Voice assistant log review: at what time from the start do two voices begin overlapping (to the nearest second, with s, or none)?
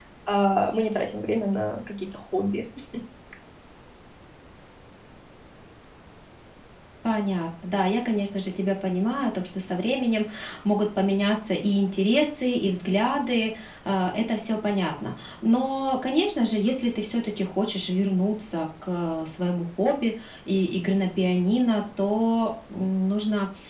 none